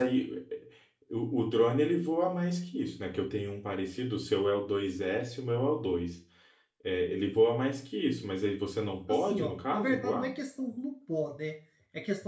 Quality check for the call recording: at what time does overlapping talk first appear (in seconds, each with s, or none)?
9.1 s